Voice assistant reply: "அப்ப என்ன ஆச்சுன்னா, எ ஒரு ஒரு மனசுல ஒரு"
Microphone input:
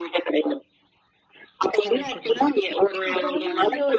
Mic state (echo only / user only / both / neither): both